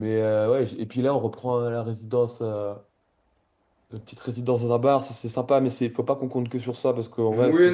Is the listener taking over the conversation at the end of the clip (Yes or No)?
Yes